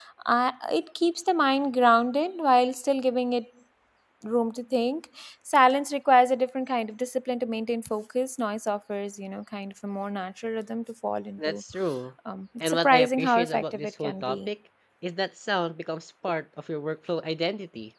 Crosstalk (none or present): present